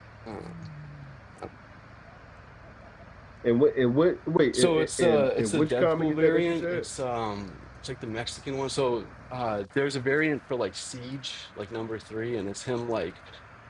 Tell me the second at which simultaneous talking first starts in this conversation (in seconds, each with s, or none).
4.5 s